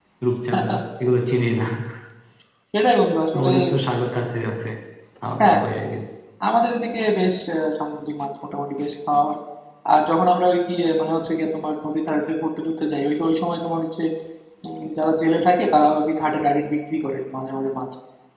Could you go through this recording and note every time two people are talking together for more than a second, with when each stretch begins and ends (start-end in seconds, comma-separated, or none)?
none